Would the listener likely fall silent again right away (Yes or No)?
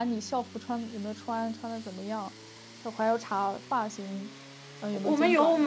No